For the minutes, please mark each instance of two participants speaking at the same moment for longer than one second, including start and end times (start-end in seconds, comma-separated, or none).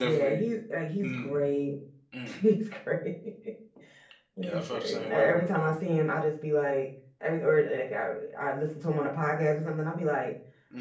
4.4-5.7